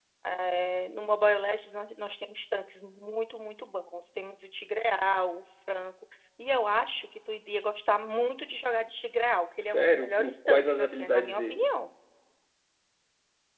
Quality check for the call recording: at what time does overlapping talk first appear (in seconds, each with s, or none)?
9.7 s